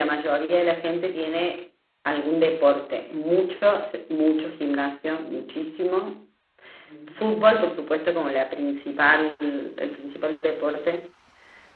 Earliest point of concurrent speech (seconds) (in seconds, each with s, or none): none